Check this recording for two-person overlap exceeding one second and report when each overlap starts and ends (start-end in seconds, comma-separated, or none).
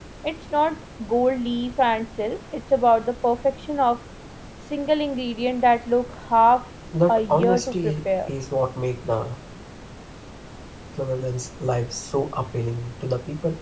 7.1-8.3